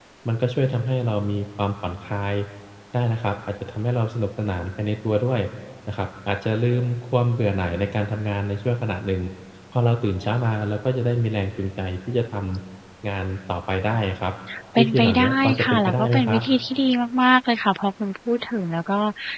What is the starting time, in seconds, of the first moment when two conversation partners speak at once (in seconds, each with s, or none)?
14.8 s